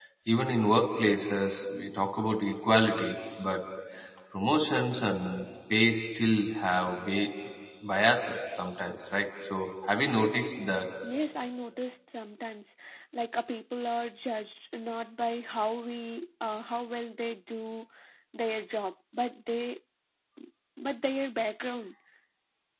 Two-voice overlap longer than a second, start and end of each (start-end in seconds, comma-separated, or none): none